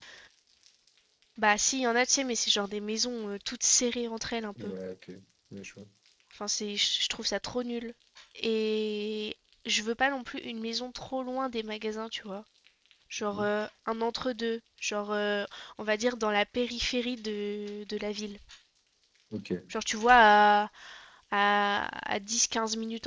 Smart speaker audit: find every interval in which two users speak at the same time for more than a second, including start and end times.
none

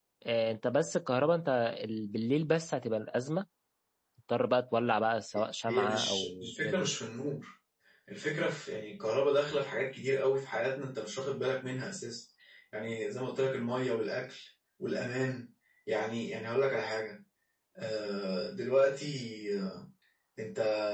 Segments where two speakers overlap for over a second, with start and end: 5.7-6.9

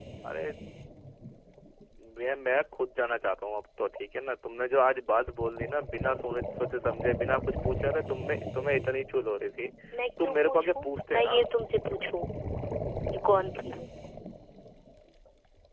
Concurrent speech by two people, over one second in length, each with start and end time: 10.2-11.4

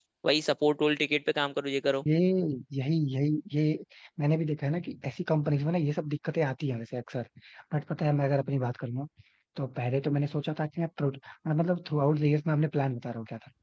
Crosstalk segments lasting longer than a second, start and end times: none

